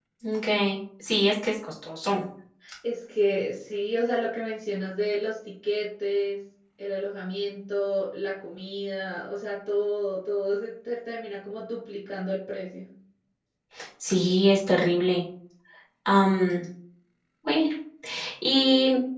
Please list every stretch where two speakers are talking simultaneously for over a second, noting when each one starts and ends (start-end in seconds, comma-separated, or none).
none